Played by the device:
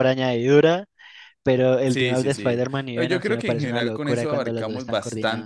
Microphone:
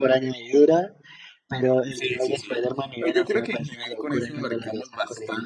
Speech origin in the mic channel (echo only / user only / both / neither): echo only